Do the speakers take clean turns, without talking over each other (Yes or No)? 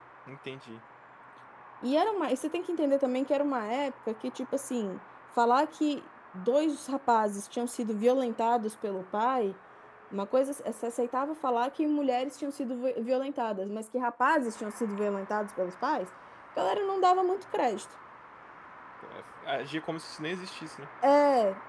Yes